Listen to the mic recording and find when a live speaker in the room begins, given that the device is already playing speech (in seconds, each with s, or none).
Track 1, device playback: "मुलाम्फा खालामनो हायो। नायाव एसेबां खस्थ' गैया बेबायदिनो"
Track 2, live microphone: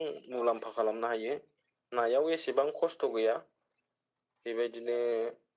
none